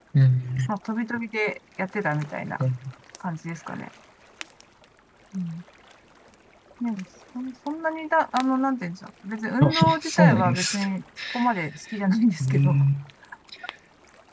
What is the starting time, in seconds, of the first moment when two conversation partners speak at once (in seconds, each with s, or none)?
9.6 s